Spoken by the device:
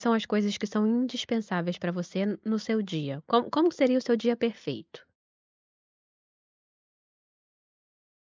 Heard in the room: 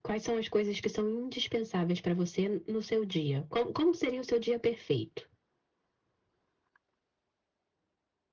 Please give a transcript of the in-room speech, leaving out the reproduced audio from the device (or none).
none